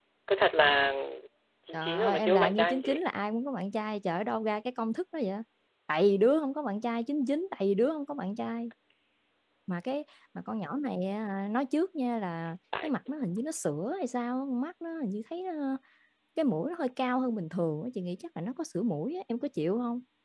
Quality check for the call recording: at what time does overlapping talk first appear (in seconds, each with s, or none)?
1.7 s